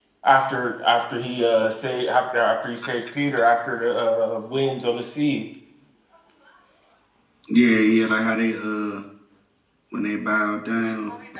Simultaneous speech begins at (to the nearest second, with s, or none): none